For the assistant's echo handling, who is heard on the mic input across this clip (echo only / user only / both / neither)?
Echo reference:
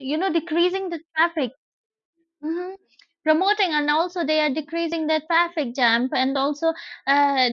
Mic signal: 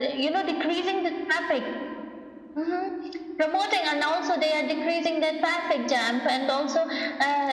echo only